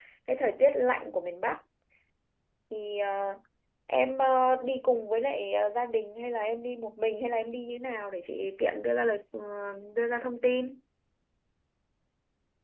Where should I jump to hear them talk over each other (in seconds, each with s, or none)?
none